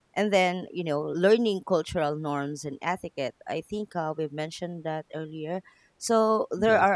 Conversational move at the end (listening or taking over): listening